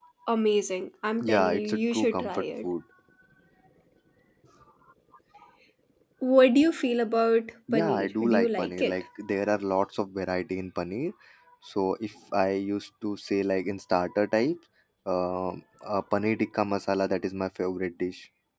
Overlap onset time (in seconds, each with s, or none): 1.2 s